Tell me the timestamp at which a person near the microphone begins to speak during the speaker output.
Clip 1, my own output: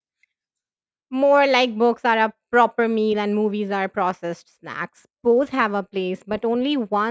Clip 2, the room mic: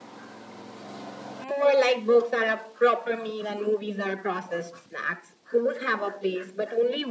none

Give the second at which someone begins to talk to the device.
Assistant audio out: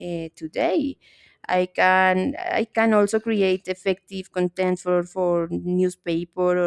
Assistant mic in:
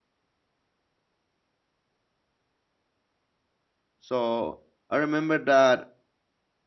4.0 s

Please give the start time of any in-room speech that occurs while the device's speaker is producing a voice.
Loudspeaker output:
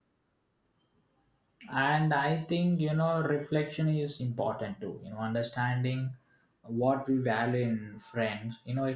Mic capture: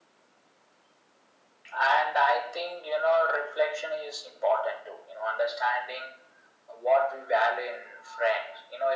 none

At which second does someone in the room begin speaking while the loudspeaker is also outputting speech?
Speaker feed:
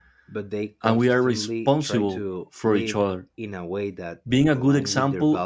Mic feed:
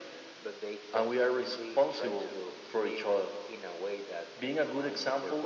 none

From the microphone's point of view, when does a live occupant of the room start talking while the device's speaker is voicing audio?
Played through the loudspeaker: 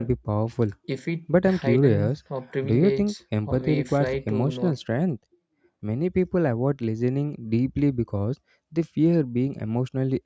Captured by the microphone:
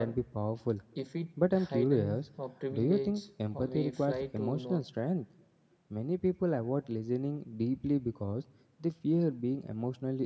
none

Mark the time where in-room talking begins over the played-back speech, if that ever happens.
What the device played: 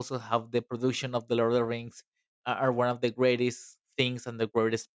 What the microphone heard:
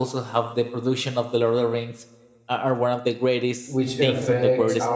3.6 s

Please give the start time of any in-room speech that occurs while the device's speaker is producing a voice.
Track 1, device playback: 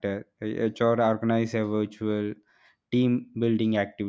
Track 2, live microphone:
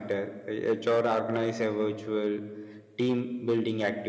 none

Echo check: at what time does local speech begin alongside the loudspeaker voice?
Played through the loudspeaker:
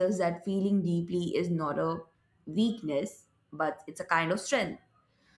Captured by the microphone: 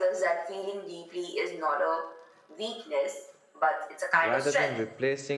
4.2 s

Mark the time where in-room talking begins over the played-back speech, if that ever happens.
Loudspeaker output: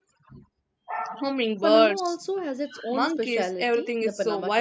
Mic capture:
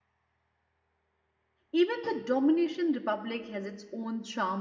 1.7 s

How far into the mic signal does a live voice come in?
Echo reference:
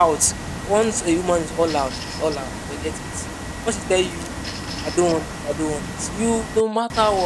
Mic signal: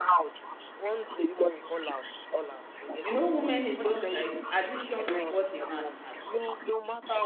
3.0 s

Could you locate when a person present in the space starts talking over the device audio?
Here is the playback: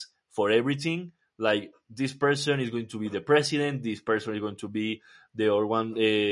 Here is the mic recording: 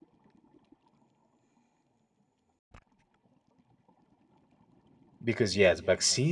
5.2 s

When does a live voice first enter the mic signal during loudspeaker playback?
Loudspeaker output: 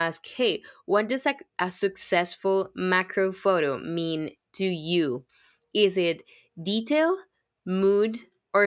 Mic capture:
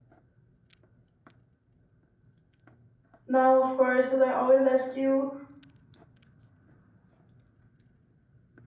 3.2 s

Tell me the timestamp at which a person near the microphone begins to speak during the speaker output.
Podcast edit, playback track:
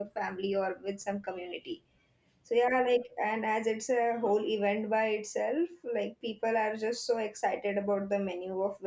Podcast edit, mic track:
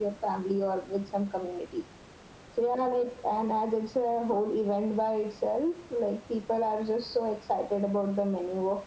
none

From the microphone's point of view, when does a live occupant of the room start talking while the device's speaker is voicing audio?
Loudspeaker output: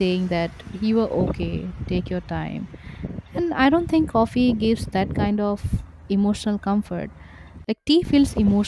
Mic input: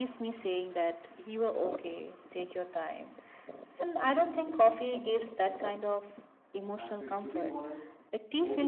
6.6 s

